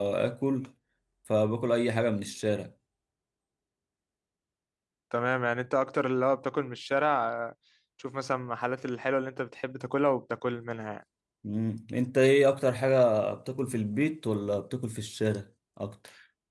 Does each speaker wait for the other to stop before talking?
Yes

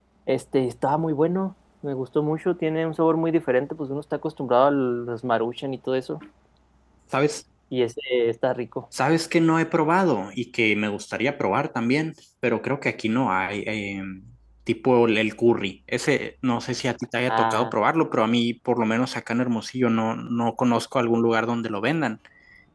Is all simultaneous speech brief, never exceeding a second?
Yes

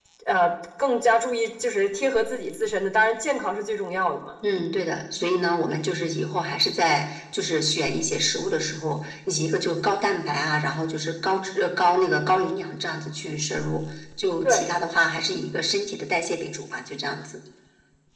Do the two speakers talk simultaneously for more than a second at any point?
No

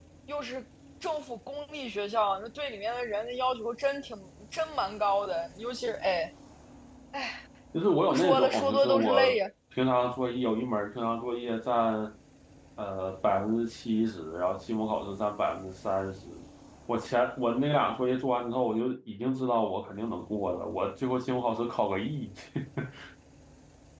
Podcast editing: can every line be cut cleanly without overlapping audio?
No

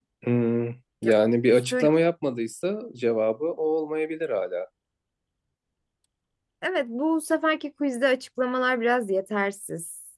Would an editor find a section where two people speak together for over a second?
No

